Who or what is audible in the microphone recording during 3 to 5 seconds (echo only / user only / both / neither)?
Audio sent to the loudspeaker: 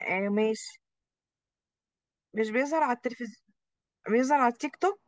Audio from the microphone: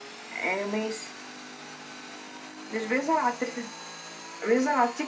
echo only